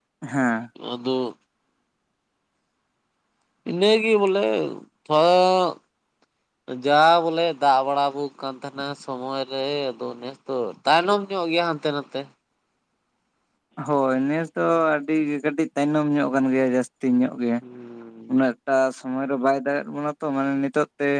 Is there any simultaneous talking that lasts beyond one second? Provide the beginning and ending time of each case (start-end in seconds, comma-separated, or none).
none